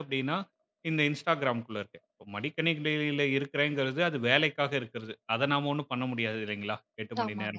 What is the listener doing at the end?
listening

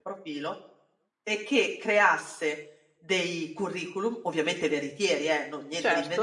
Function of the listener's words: listening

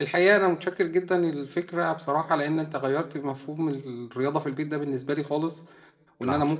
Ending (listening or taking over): listening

